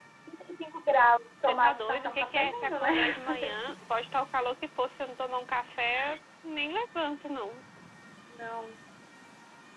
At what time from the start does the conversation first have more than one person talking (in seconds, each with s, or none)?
1.5 s